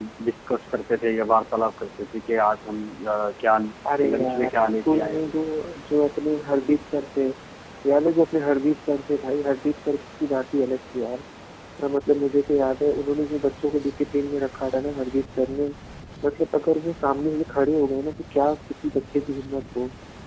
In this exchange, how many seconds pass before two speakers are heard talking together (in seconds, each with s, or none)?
3.9 s